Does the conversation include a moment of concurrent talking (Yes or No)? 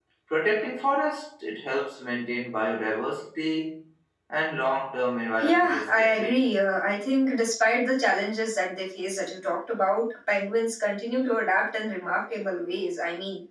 Yes